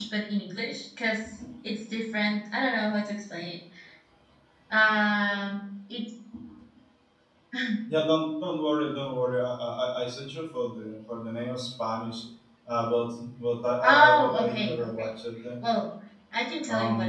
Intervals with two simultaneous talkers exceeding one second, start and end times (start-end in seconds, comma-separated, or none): 13.8-15.1